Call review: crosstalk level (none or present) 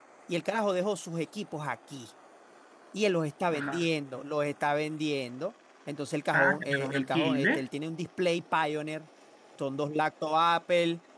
present